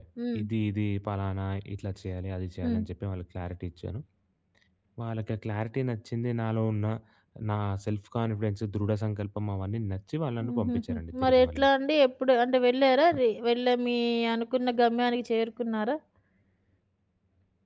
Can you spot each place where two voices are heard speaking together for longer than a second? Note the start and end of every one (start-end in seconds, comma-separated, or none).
10.4-11.7